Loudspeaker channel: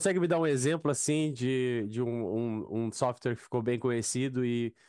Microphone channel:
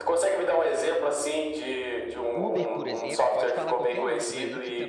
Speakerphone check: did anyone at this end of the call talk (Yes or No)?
Yes